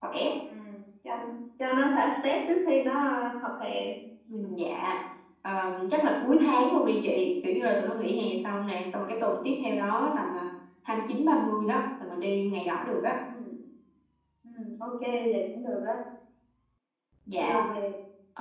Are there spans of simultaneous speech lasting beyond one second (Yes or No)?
No